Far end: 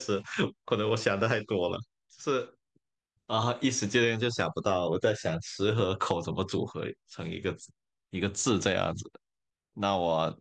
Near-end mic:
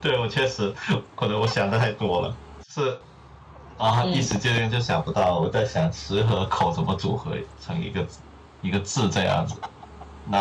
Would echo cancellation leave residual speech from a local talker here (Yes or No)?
Yes